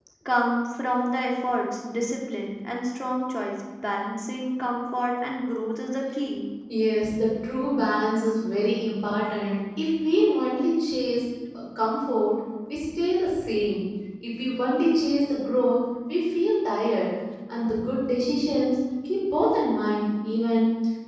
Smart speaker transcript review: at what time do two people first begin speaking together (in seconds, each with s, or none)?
none